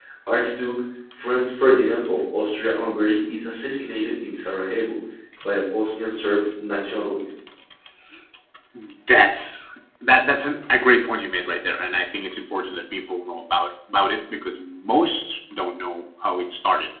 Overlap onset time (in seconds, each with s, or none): none